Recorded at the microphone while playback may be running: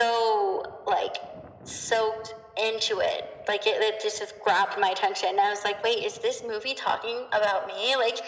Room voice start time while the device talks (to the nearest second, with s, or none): none